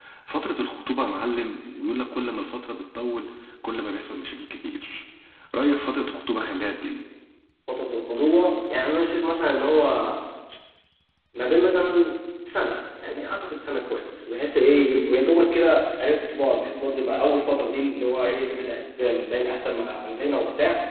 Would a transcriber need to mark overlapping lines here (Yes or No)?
No